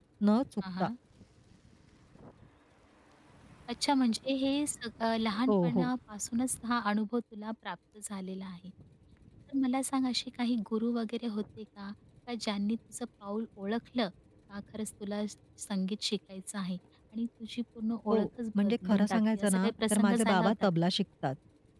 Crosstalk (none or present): present